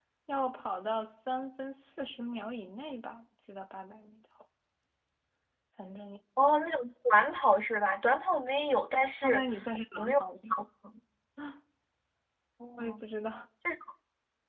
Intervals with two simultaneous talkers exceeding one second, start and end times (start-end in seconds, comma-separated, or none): none